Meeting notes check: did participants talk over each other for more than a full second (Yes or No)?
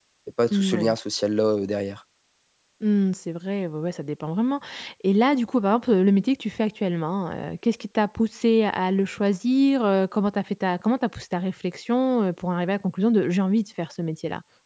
No